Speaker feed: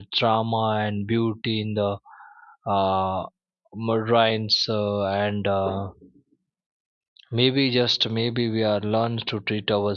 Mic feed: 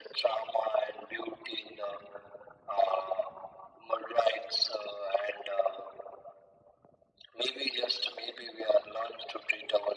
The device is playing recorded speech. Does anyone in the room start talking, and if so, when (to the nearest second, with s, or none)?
none